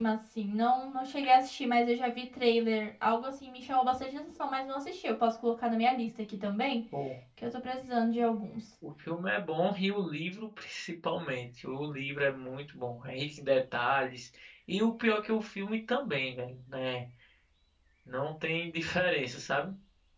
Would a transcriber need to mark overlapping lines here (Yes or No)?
No